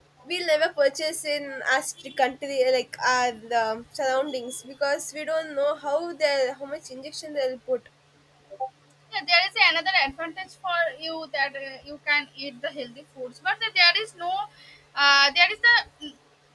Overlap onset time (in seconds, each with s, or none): none